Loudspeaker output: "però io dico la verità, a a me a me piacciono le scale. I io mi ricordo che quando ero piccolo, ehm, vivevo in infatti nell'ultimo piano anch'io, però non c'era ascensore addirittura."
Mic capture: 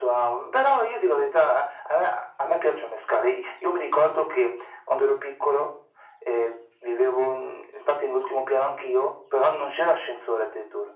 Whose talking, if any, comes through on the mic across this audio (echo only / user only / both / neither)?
echo only